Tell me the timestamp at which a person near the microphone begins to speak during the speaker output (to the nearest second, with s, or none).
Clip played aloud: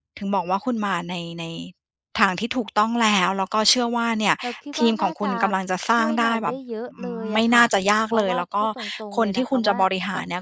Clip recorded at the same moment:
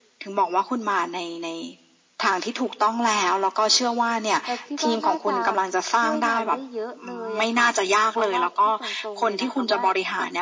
none